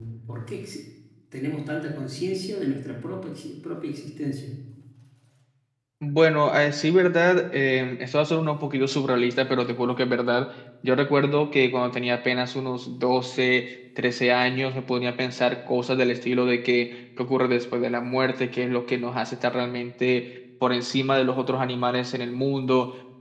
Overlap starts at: none

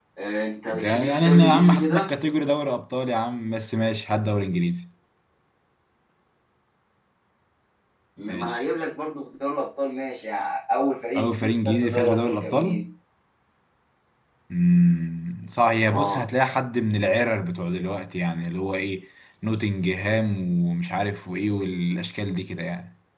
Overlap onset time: 1 s

